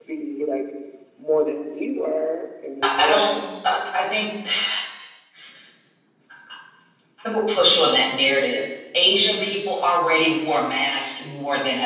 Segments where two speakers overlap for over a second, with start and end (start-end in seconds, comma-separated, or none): none